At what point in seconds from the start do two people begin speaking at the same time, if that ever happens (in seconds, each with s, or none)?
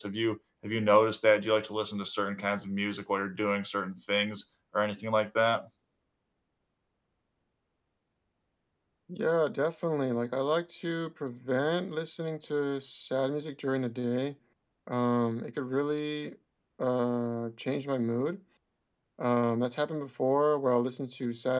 none